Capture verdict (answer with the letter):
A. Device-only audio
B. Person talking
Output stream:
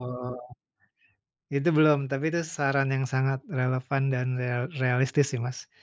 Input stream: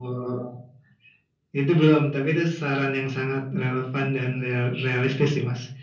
A